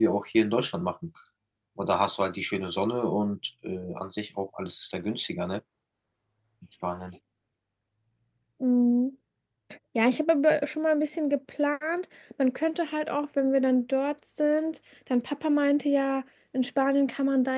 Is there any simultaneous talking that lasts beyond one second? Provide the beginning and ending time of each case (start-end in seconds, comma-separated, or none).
none